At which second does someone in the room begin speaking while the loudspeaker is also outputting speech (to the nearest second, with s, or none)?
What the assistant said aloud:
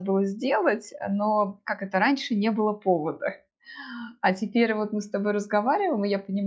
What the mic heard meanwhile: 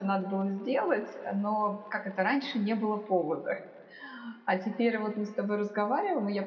none